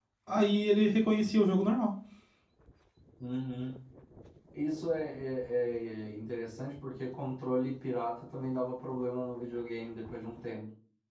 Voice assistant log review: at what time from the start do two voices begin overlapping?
none

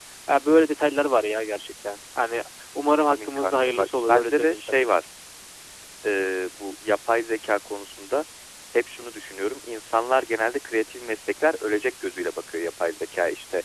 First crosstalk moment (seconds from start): 3.0 s

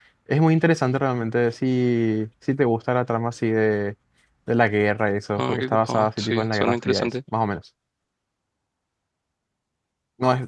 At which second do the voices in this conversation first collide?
5.4 s

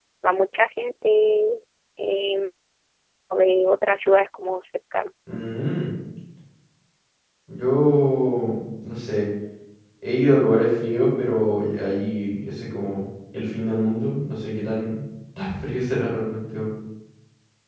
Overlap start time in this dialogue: none

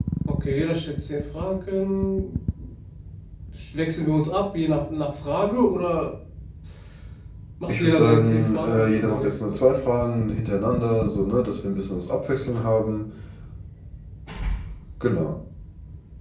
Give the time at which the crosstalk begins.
7.7 s

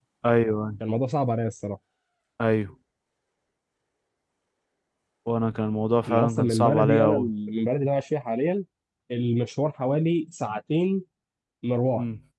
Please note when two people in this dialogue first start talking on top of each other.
6.1 s

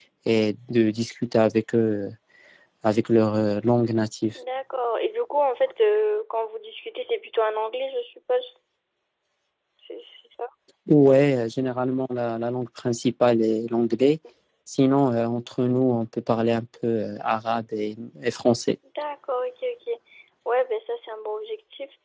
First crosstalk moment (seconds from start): none

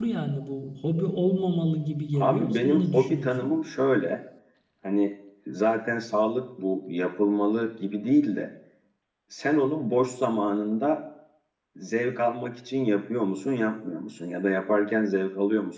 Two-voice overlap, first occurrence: 2.1 s

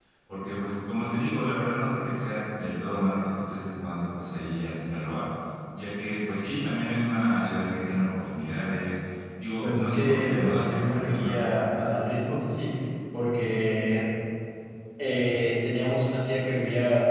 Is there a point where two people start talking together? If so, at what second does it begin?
9.6 s

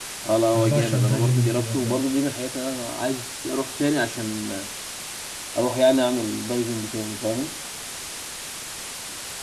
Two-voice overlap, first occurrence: 0.5 s

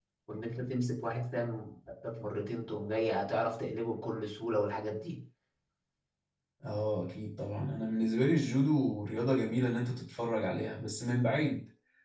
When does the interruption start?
none

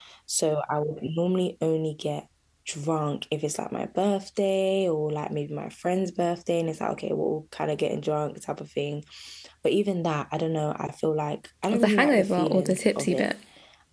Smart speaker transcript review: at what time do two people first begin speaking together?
11.7 s

